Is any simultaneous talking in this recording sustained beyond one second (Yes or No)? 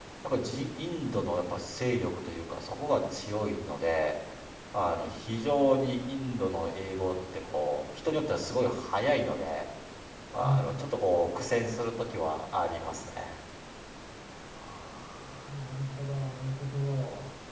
No